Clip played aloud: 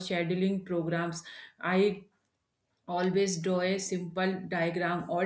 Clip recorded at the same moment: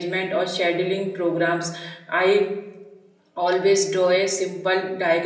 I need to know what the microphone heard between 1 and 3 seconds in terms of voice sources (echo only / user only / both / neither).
echo only